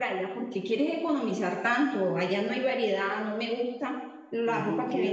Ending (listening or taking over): taking over